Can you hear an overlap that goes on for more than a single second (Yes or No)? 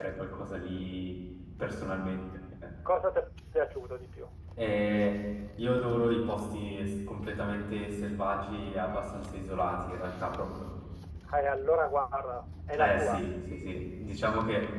No